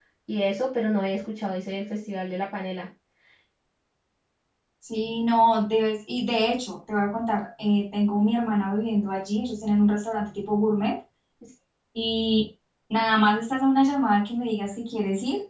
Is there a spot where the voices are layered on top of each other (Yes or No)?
No